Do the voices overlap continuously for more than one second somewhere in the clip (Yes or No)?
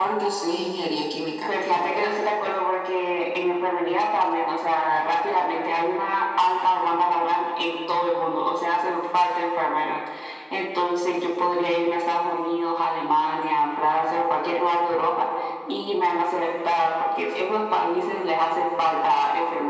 No